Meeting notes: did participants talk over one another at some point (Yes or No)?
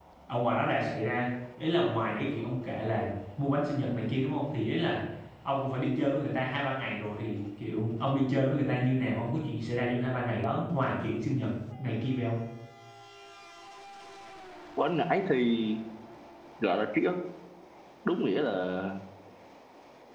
No